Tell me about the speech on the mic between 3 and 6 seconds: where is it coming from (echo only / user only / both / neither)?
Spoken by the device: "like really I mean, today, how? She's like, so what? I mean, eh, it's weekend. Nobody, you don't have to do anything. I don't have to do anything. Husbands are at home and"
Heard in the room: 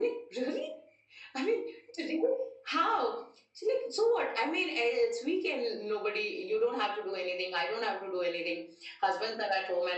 echo only